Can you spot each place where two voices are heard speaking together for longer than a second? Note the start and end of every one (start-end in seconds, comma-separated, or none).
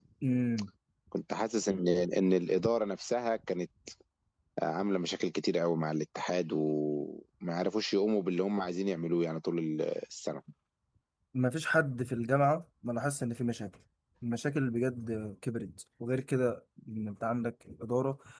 none